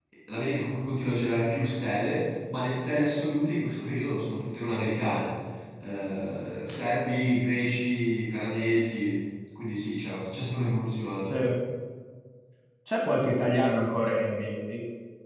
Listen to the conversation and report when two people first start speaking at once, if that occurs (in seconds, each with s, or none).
none